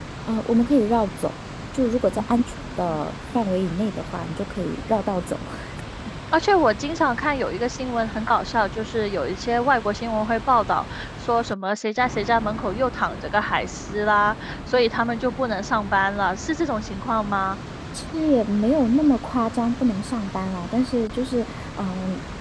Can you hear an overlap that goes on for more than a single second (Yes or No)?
No